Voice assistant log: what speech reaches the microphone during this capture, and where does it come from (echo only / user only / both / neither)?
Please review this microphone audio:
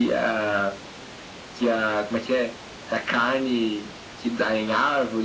echo only